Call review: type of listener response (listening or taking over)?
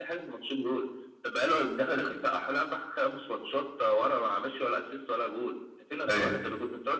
listening